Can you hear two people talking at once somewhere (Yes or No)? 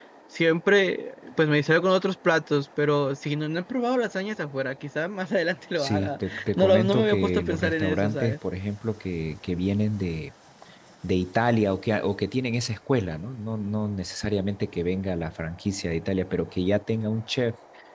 Yes